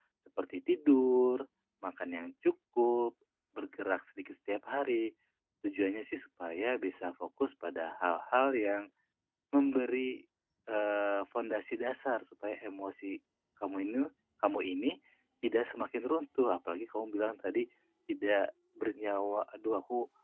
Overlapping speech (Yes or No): No